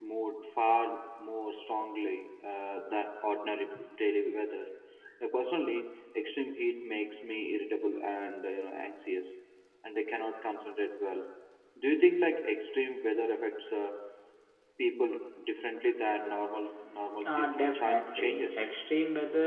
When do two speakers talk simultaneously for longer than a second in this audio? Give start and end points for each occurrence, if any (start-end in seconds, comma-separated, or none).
17.2-18.7